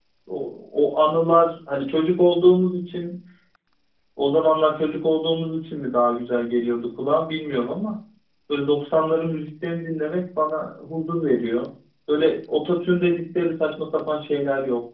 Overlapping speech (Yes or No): No